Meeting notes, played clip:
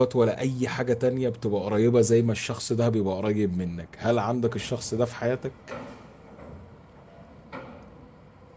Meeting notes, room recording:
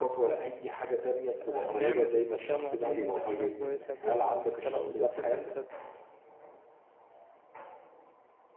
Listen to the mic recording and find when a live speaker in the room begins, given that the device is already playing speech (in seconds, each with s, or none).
1.4 s